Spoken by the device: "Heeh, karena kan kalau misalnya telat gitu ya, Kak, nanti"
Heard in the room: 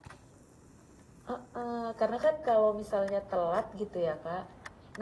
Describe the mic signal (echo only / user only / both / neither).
echo only